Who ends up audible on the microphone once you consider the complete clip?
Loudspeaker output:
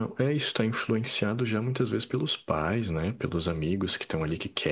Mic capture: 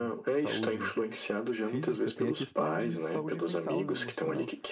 both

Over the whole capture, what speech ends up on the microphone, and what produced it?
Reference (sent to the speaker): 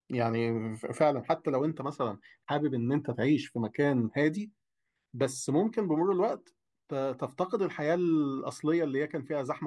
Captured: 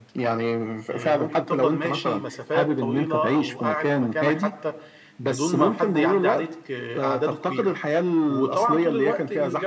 both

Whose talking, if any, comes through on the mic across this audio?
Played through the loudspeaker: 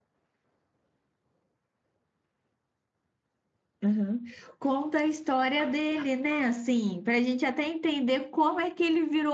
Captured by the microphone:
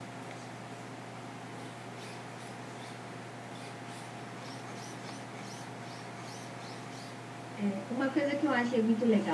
user only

